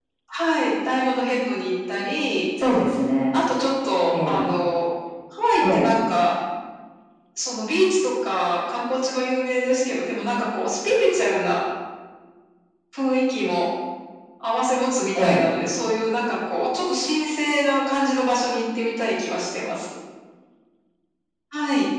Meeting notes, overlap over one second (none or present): none